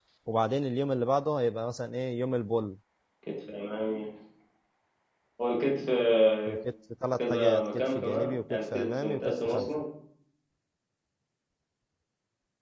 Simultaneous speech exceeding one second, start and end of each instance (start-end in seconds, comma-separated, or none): 7.2-9.7